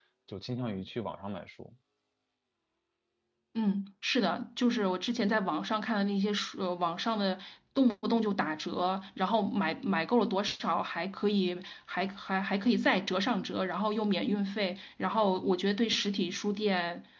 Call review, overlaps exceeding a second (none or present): none